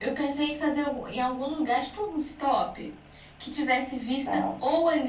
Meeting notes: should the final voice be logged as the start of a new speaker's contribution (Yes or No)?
No